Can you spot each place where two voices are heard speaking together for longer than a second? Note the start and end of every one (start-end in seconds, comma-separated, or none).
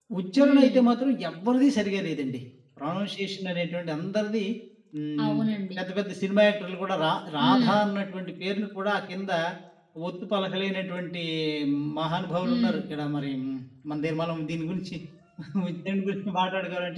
none